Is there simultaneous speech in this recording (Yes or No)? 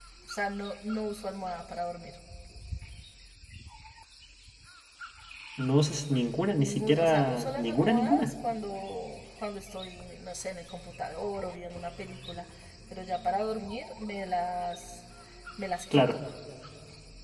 Yes